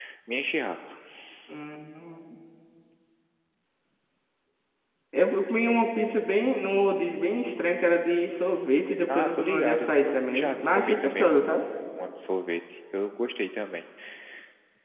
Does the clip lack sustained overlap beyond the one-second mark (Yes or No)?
No